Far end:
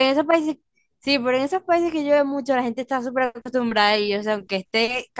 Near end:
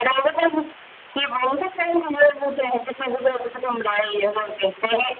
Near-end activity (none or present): none